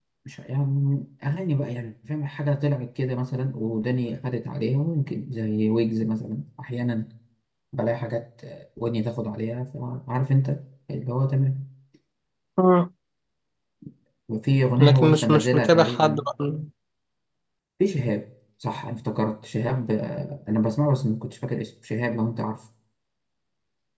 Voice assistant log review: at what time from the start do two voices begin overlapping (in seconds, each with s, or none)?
14.8 s